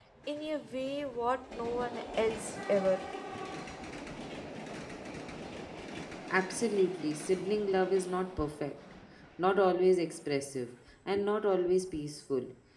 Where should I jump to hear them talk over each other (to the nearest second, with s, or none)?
none